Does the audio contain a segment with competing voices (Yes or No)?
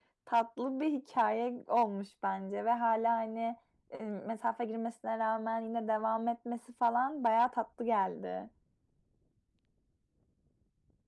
No